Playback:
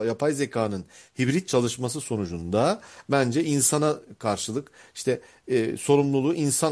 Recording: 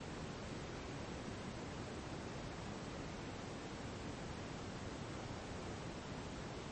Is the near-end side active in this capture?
No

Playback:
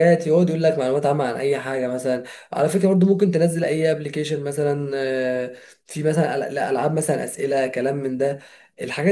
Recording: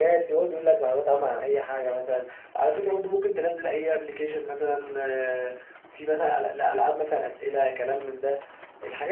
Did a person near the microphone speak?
No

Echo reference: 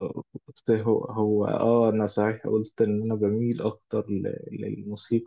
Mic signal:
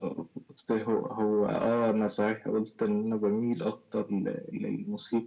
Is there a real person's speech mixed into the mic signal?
No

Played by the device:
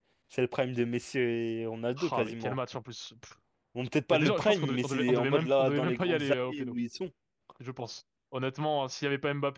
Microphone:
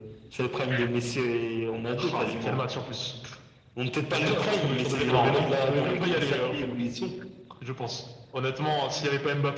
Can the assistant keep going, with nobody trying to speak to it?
No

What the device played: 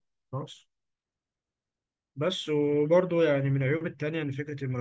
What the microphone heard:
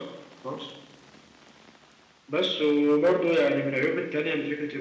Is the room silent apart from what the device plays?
Yes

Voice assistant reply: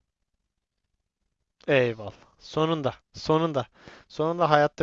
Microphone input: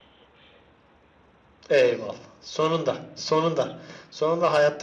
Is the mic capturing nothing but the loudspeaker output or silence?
Yes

